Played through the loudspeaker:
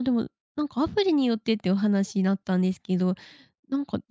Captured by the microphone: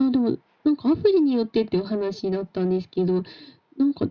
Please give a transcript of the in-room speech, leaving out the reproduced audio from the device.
none

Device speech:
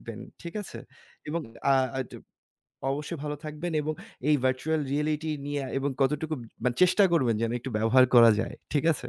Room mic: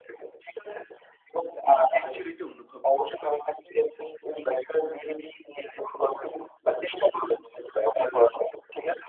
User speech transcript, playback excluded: actually তেও অনুভব করতে পারি।

